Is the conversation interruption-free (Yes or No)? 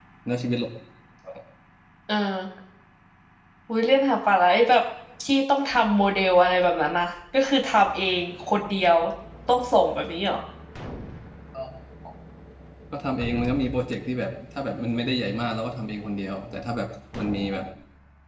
Yes